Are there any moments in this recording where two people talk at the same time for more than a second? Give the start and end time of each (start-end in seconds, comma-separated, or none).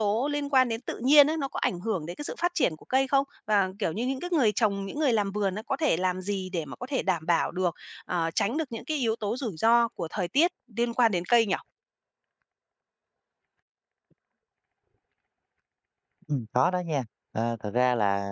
none